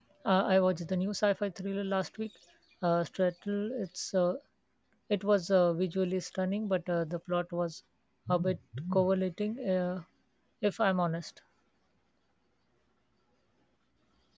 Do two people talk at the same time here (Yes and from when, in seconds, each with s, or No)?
No